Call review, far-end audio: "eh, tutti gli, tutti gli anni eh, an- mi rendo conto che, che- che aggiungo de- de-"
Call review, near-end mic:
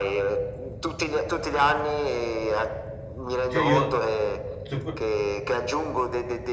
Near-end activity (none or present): present